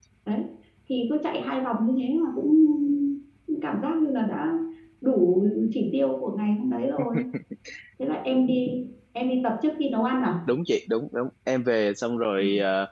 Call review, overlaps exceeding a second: none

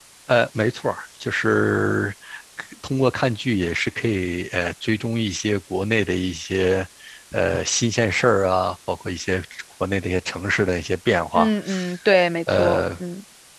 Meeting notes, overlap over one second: none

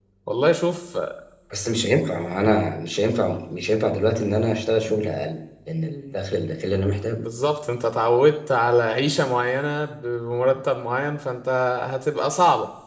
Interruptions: none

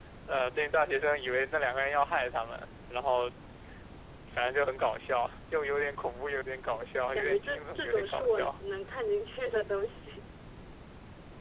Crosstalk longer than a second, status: present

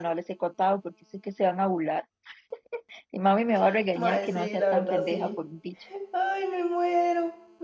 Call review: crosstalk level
present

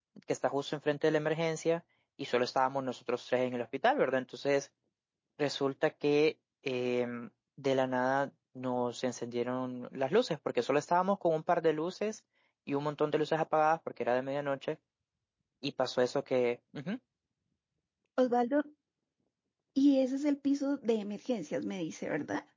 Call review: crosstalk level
none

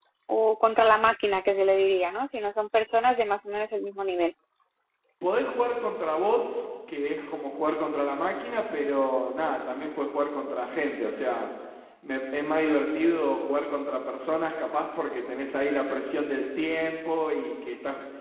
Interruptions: none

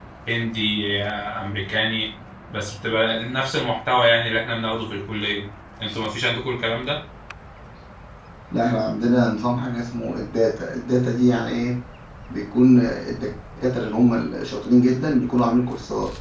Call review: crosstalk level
none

